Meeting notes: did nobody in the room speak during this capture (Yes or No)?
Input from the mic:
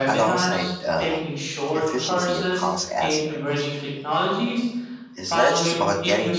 No